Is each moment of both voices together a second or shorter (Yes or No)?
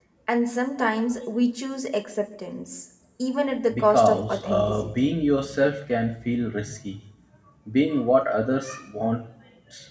No